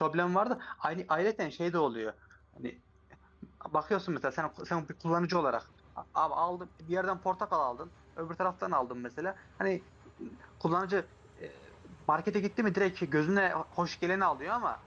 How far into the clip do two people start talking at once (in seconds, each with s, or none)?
none